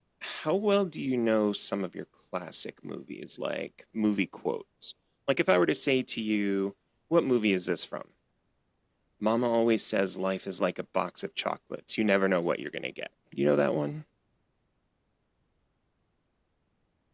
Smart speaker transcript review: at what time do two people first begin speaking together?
none

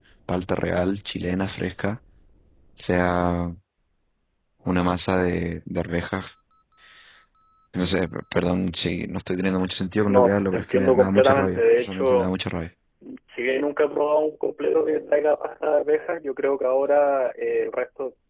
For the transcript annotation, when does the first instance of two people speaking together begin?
10.1 s

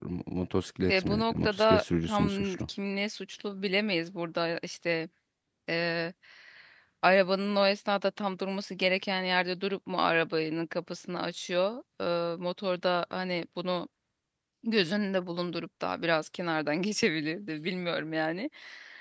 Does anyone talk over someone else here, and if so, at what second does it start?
0.9 s

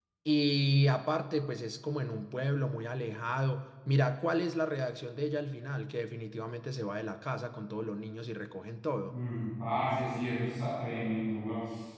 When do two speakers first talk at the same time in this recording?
none

